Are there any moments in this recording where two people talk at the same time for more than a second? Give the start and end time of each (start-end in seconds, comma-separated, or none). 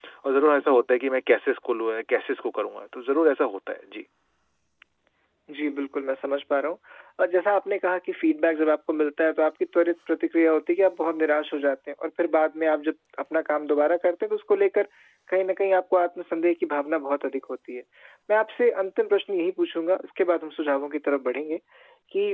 none